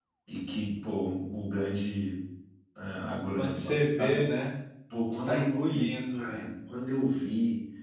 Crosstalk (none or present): present